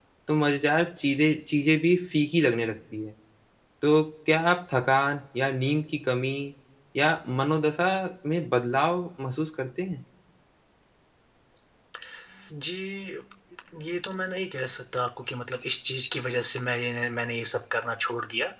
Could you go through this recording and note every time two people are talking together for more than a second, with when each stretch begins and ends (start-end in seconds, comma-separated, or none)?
none